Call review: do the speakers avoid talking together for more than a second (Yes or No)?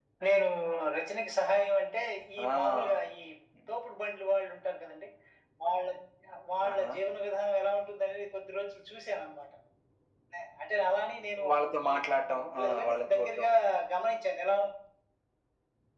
No